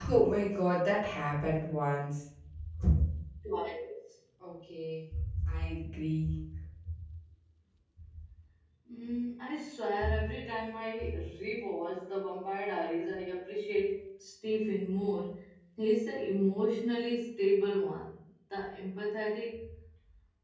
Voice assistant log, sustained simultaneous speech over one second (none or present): none